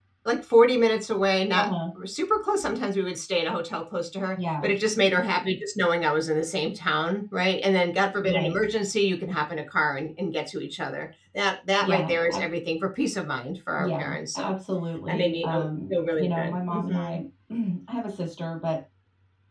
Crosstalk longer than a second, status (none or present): present